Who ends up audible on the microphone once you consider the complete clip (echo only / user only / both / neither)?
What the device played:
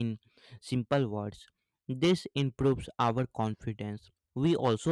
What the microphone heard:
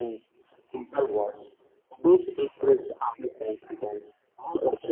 echo only